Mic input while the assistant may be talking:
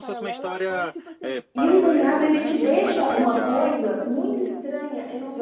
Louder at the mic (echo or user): user